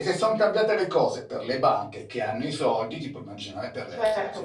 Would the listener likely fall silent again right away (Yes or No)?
No